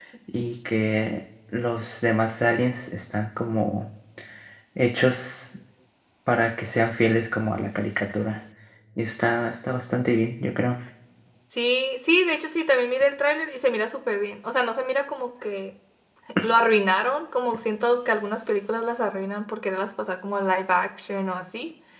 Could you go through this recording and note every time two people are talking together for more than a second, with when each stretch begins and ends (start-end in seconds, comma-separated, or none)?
none